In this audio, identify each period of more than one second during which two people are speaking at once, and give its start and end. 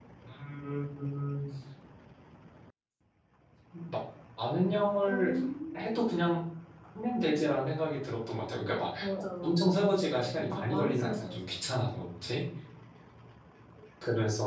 9.4-11.6

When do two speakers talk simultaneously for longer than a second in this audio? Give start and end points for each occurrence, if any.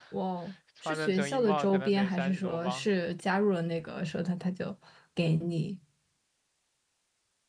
0.8-2.9

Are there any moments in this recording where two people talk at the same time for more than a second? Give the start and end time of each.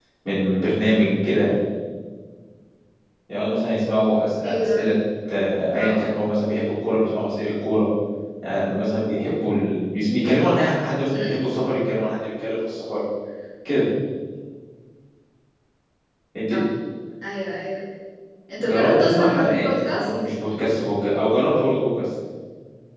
18.6-20.0

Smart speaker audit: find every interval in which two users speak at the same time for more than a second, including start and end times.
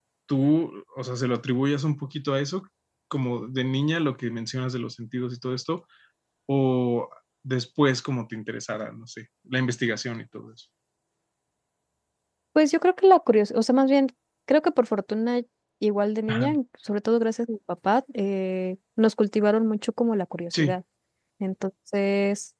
none

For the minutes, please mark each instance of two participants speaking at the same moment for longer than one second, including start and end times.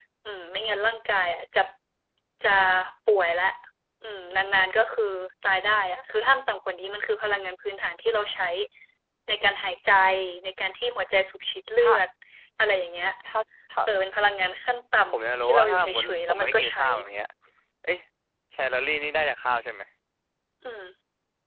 15.1-16.9

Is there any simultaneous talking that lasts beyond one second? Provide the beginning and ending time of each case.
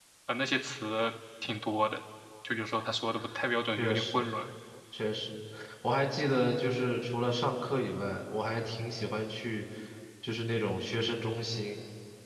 none

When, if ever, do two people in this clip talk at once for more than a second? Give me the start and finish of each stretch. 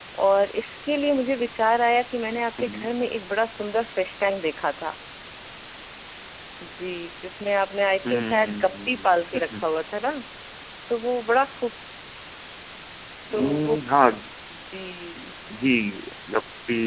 8.1-9.7

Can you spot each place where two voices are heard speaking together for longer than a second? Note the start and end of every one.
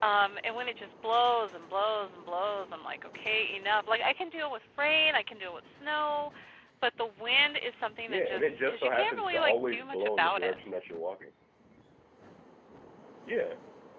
8.1-10.6

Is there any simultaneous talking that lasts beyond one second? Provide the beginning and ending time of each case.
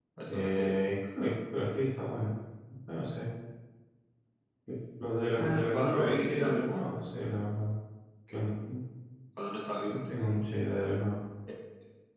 5.4-6.8

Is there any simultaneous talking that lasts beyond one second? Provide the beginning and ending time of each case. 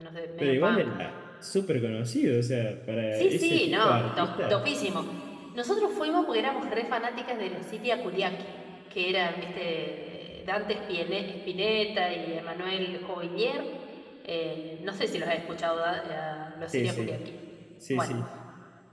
3.1-4.7

